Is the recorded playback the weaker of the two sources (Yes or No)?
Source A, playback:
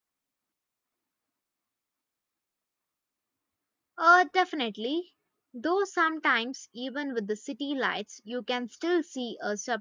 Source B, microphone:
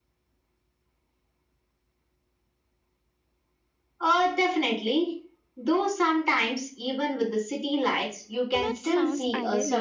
No